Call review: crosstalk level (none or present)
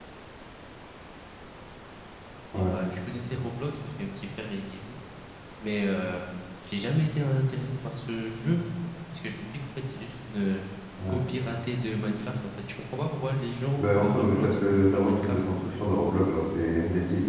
present